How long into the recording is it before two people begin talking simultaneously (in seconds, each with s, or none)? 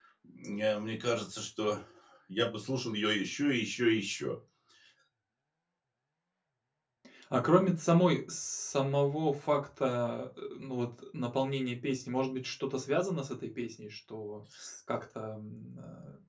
none